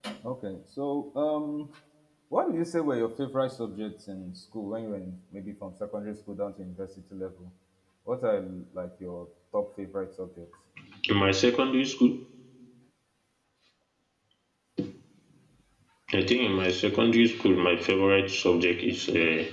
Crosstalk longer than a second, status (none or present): none